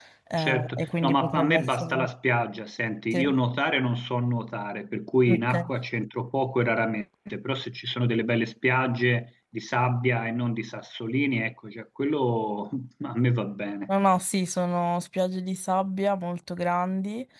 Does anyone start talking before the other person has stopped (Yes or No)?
Yes